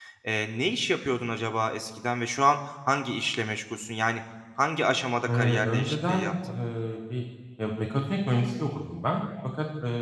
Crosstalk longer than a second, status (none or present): present